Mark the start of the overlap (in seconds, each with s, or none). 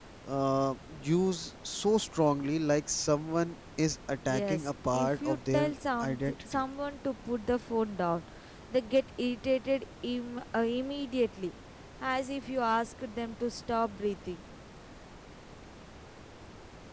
4.3 s